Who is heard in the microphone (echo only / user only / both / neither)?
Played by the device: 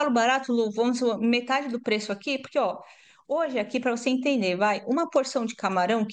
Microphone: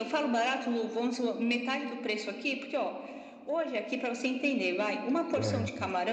both